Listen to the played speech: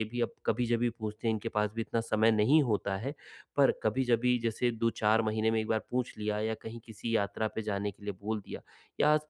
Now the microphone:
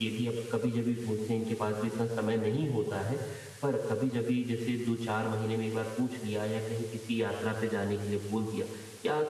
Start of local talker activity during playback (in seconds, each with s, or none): none